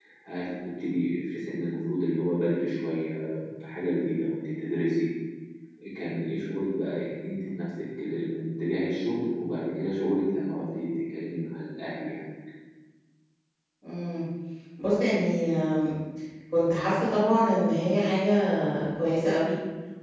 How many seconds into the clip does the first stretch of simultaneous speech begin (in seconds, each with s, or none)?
none